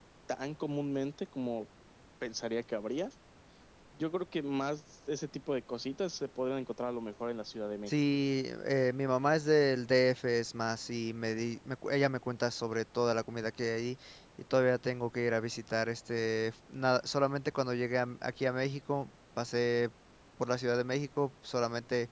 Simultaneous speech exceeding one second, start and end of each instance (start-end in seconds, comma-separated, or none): none